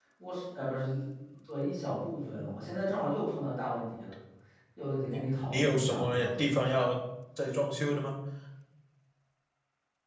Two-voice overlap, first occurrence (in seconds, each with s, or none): 5.1 s